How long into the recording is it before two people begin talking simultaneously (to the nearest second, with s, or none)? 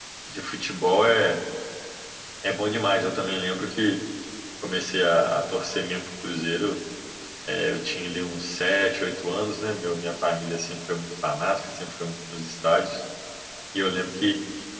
none